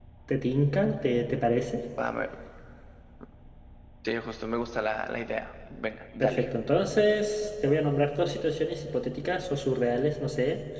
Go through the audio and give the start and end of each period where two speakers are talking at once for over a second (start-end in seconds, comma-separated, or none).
none